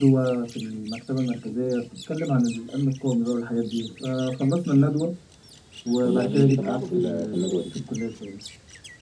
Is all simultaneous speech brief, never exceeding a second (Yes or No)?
No